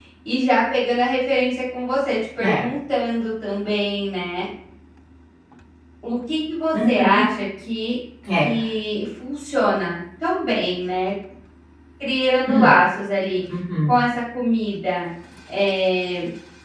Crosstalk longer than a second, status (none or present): none